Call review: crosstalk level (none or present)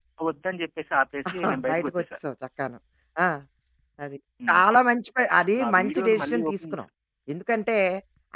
present